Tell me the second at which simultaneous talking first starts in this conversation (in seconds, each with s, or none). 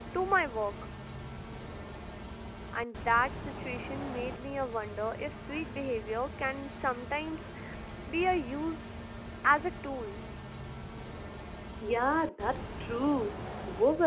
none